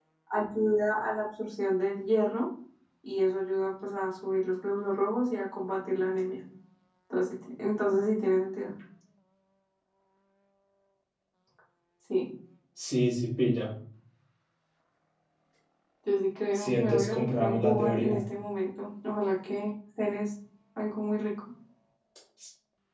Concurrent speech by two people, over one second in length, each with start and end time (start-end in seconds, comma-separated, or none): 16.6-18.2